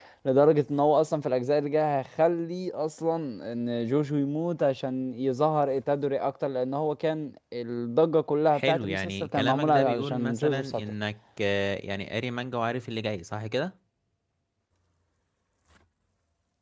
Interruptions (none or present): present